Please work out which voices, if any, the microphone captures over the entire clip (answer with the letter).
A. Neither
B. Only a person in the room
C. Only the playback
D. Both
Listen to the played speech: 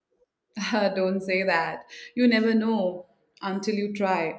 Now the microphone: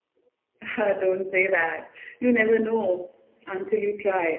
C